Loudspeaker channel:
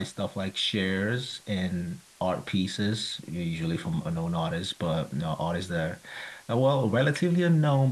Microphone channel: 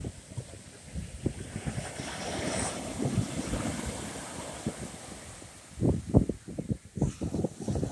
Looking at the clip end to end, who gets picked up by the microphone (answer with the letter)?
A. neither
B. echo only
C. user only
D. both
A